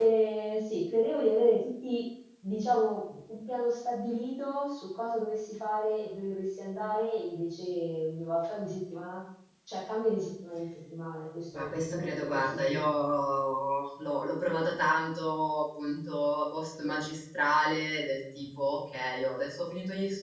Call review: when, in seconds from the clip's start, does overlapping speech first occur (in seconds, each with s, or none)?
11.5 s